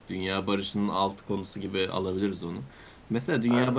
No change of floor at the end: Yes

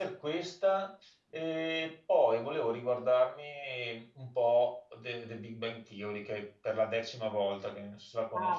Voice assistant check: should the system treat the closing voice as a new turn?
Yes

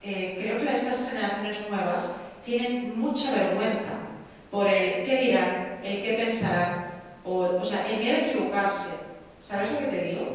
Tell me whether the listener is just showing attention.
No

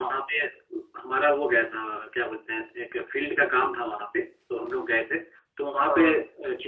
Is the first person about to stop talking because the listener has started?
No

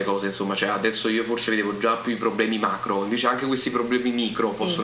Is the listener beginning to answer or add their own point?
Yes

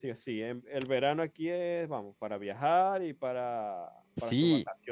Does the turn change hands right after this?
Yes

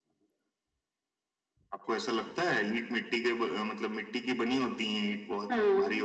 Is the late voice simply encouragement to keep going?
No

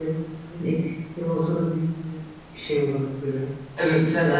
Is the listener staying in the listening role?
No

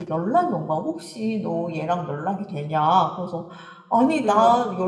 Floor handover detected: No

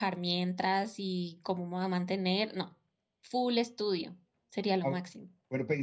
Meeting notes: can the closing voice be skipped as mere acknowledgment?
No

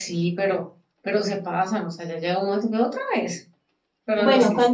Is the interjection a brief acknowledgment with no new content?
No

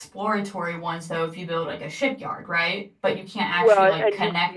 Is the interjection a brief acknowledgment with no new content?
No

